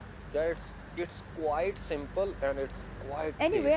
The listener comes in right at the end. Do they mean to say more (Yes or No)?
Yes